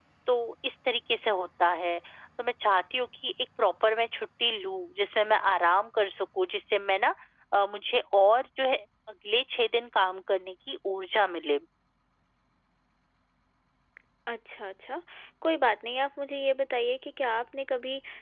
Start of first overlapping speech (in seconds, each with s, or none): none